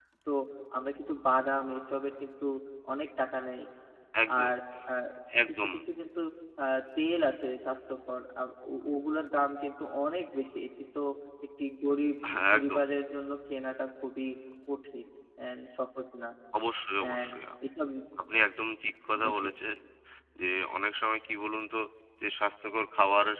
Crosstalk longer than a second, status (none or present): none